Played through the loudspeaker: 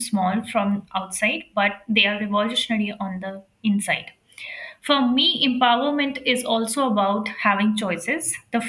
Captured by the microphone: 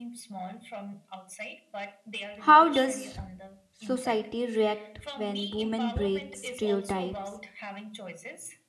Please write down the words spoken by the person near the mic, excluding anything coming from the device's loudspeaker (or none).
How does society react when women break stereotypes?